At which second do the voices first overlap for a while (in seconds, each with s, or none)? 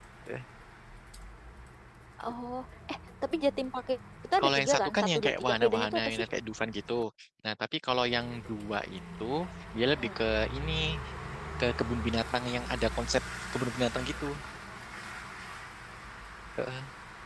4.4 s